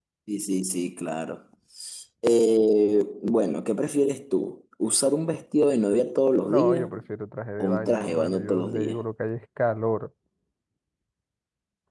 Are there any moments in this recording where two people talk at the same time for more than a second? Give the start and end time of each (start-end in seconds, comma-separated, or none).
7.6-9.0